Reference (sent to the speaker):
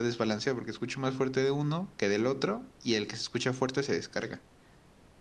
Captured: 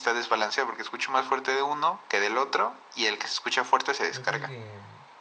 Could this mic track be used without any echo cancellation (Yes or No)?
No